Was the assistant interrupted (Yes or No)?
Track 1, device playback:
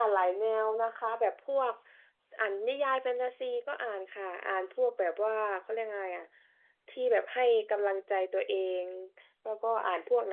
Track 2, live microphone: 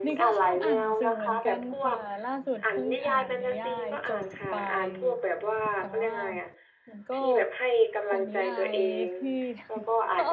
Yes